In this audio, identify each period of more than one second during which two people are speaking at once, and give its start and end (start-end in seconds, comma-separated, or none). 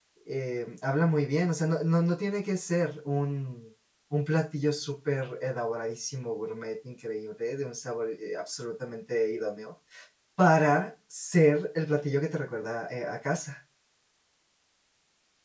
none